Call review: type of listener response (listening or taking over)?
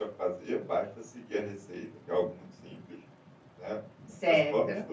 listening